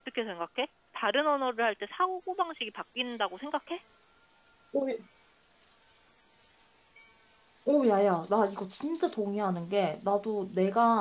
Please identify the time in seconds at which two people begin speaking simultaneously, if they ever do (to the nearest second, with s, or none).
none